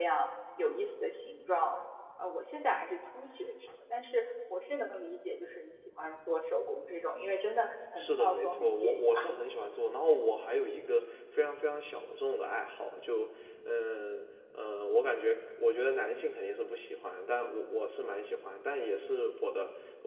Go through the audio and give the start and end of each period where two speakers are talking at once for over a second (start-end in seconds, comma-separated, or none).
8.0-9.3